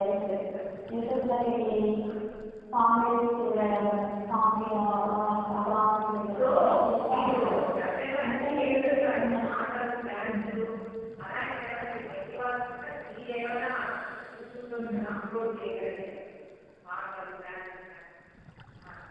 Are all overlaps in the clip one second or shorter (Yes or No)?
No